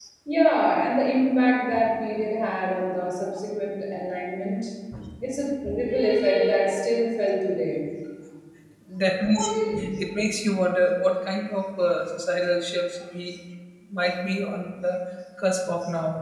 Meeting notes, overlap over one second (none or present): none